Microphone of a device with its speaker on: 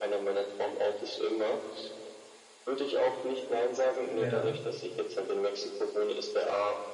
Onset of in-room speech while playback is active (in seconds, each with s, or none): 4.1 s